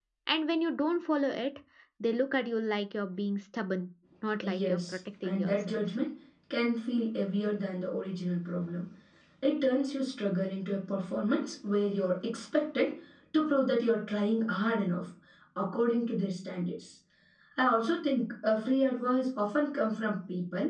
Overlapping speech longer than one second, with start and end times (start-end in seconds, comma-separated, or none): 4.4-5.8